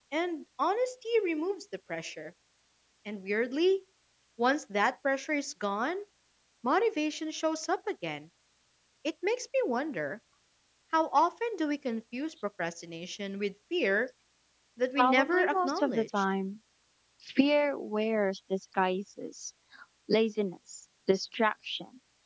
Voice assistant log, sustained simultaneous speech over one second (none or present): present